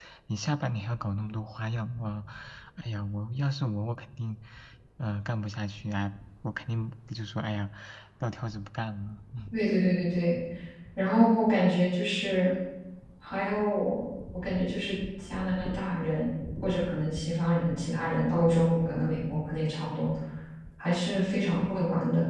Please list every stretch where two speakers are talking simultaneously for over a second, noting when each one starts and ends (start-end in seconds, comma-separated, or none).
none